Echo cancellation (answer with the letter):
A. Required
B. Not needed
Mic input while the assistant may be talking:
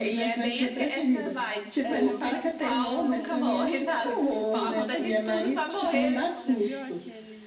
A